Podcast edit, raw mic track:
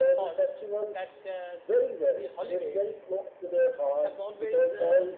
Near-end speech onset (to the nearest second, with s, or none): none